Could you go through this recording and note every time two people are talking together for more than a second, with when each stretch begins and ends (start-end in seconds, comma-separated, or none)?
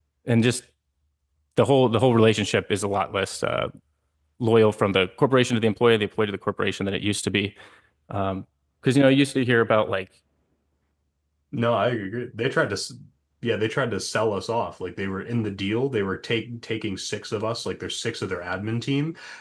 none